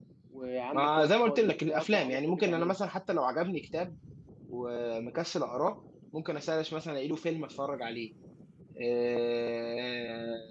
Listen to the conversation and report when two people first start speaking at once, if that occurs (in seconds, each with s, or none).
0.7 s